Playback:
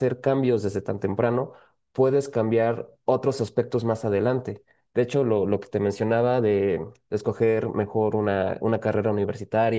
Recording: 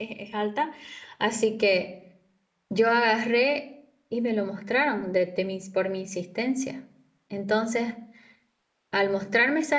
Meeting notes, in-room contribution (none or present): present